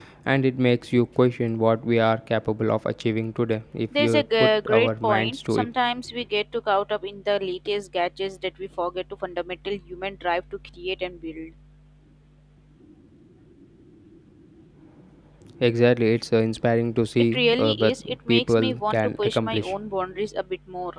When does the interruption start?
4 s

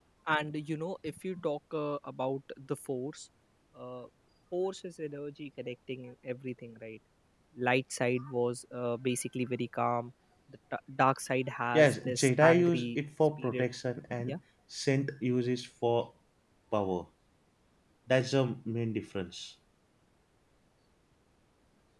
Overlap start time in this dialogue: 12 s

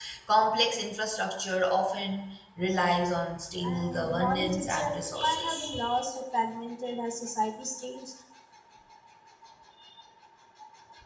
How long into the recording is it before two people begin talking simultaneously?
4 s

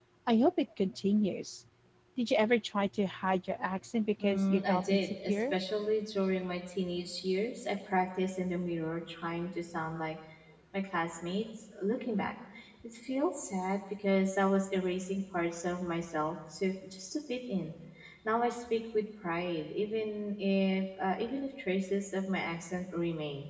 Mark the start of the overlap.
4 s

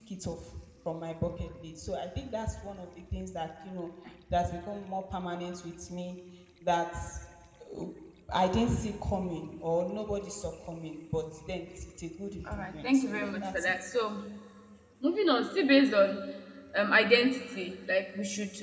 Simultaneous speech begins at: 12 s

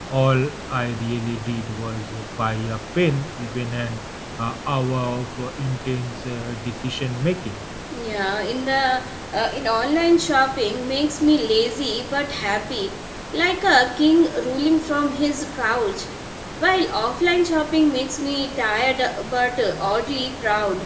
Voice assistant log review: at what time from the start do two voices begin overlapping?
none

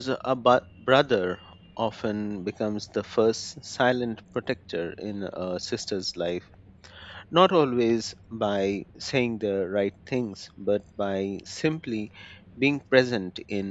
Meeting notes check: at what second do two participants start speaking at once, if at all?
none

